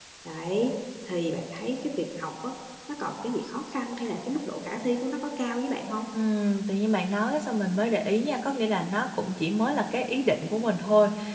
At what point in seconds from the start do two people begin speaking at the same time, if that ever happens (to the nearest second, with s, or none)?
none